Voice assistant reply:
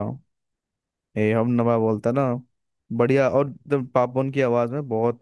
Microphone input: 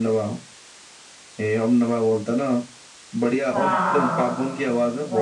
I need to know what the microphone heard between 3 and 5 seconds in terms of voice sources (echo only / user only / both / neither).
both